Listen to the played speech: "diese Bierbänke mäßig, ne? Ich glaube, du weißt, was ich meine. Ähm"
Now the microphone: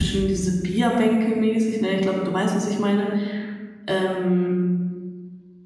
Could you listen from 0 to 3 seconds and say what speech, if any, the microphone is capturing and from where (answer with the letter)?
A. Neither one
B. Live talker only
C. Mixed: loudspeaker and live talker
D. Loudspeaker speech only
D